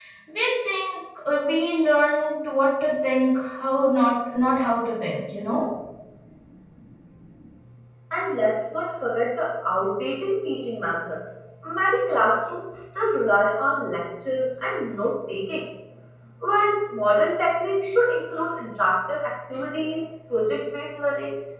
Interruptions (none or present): none